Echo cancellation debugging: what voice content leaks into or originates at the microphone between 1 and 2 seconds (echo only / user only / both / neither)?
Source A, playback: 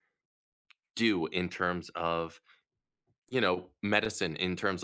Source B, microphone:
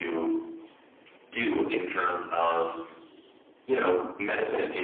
echo only